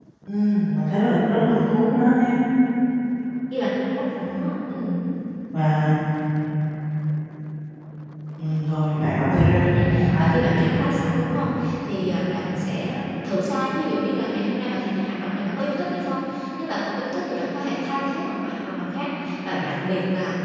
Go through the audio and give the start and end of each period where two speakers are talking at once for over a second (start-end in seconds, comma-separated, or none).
9.4-10.8